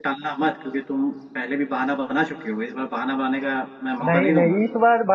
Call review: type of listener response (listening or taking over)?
taking over